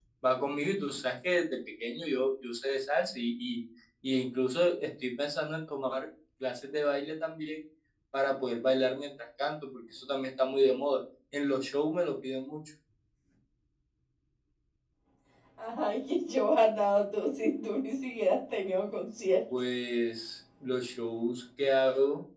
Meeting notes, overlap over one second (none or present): none